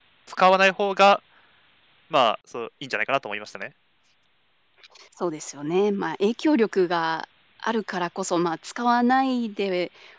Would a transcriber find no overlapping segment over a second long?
Yes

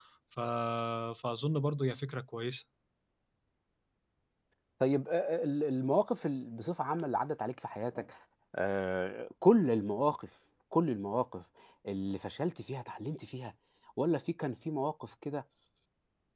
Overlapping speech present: No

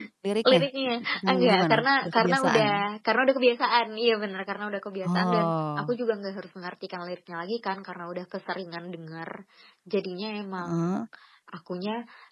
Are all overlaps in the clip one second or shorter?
No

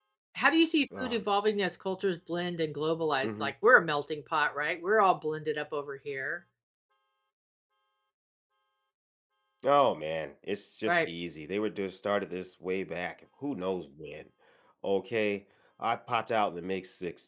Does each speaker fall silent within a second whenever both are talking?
Yes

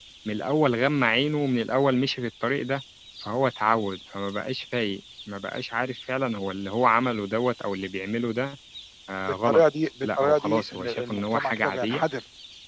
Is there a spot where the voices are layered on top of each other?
Yes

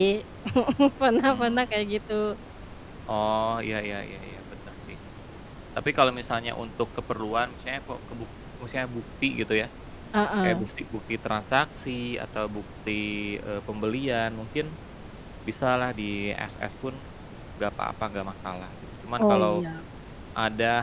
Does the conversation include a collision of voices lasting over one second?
No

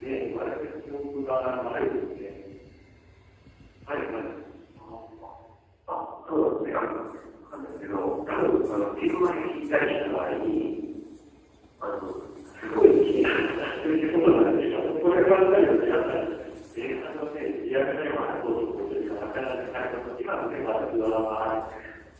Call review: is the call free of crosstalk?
No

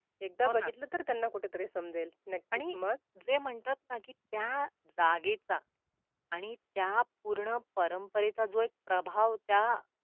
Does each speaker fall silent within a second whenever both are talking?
Yes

